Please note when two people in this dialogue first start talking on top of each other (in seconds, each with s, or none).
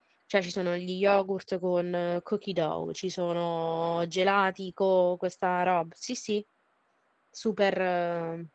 none